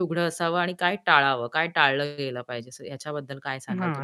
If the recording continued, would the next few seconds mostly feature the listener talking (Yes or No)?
Yes